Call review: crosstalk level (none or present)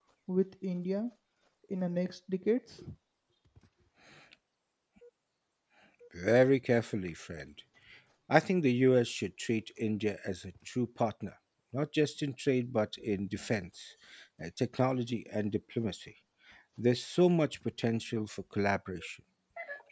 none